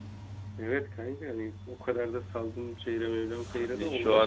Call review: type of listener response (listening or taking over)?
taking over